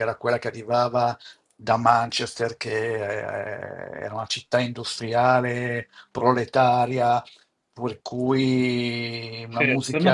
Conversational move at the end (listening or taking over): taking over